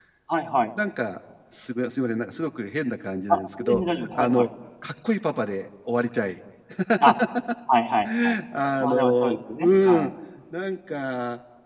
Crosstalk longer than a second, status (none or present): present